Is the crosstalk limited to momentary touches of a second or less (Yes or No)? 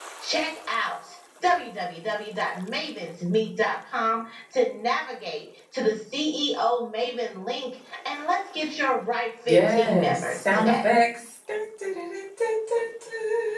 No